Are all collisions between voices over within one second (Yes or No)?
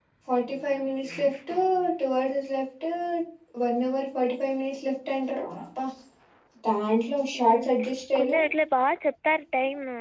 Yes